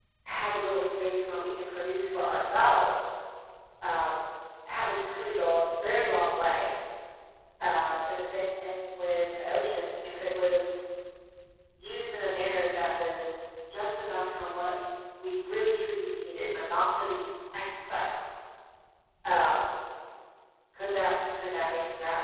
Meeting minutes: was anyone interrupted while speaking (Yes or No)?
No